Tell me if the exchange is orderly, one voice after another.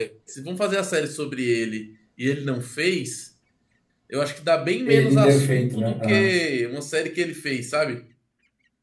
No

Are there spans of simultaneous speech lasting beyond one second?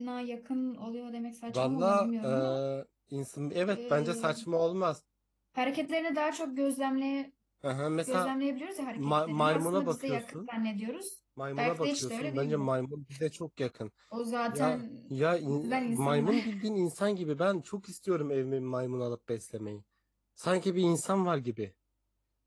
Yes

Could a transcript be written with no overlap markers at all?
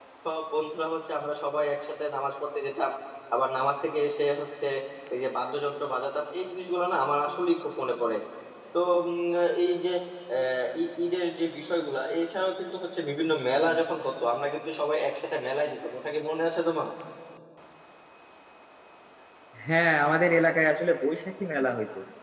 Yes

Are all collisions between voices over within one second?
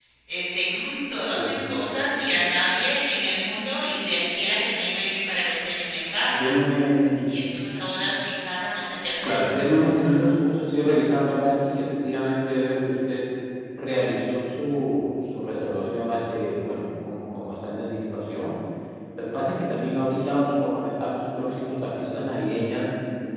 Yes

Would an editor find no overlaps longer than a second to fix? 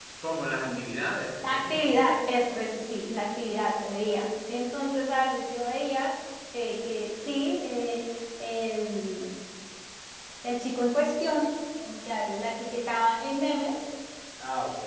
Yes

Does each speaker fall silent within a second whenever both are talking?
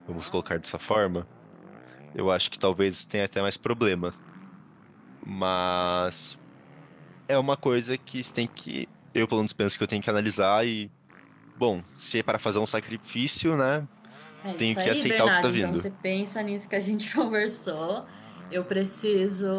No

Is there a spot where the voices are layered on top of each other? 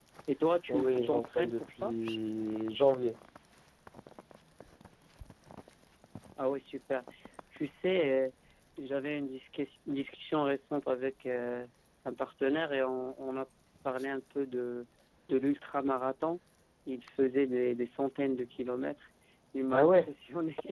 Yes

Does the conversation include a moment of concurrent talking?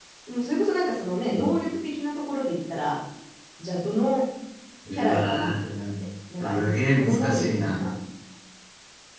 Yes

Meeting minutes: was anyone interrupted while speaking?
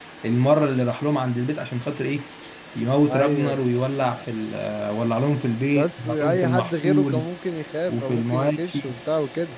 Yes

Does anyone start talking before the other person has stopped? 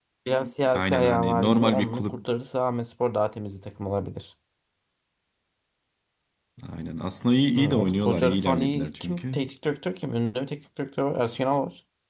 Yes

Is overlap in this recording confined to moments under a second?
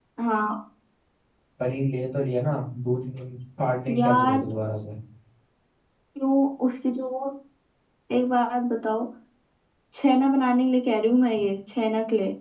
Yes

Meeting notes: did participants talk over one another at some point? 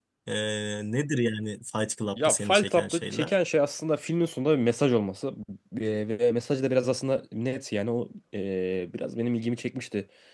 Yes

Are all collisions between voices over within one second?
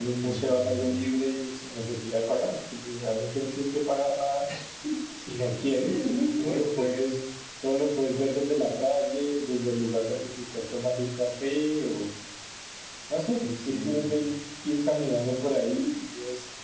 No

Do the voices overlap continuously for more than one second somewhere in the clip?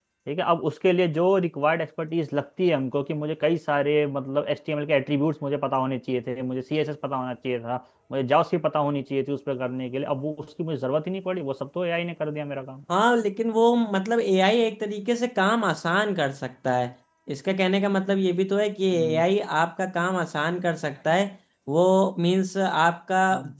No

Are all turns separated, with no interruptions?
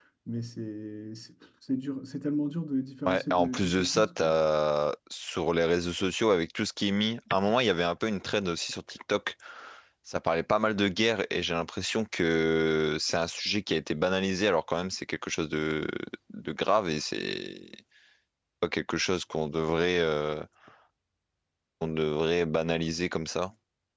No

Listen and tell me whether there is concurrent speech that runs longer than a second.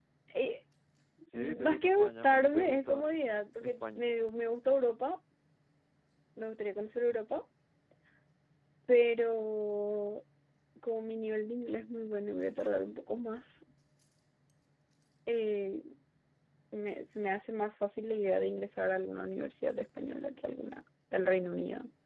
Yes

